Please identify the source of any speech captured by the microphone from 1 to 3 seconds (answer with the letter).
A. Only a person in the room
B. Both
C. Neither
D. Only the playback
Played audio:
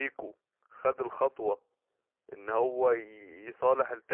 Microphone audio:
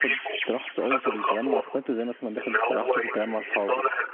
B